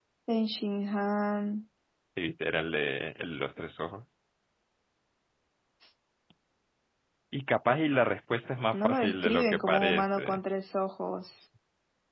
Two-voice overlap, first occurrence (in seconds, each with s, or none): 8.7 s